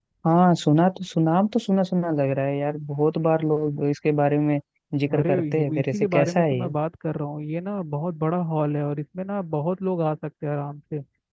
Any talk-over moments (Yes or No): Yes